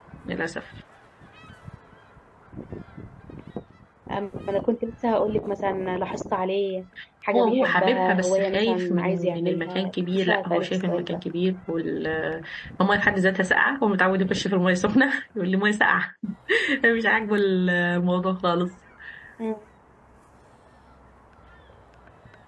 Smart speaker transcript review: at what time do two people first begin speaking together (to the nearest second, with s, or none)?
7 s